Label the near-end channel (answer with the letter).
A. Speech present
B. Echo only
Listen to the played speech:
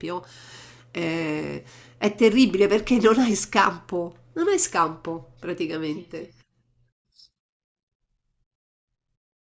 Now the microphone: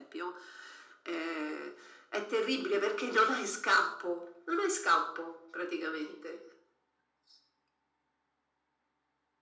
B